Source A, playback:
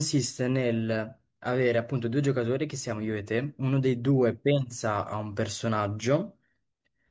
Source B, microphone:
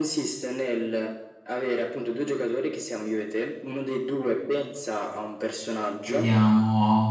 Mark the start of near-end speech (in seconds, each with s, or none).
6.0 s